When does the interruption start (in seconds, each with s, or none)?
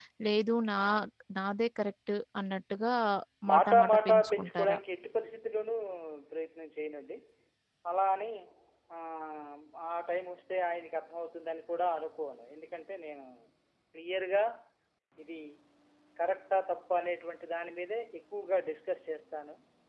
3.5 s